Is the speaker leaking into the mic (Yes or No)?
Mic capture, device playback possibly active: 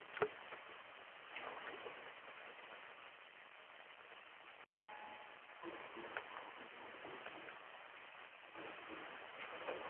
No